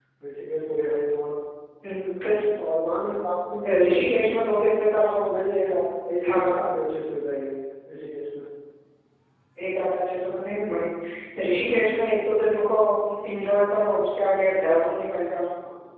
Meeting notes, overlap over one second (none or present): none